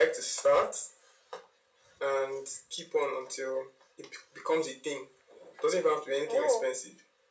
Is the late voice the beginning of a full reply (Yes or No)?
No